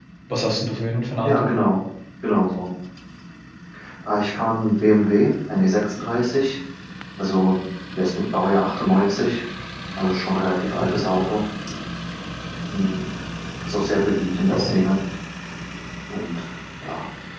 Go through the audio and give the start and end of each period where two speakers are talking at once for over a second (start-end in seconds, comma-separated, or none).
none